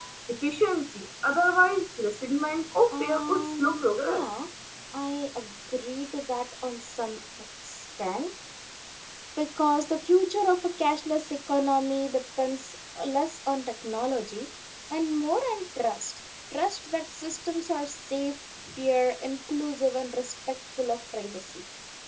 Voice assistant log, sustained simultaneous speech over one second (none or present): present